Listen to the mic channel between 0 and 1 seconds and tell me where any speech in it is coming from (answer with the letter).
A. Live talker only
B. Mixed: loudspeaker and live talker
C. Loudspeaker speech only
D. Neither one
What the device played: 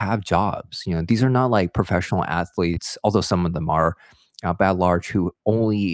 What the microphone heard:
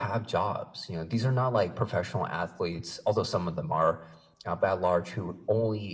C